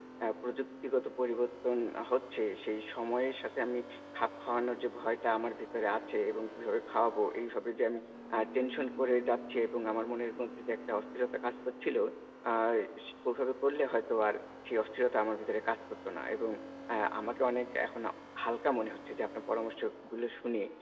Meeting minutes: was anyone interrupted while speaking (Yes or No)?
No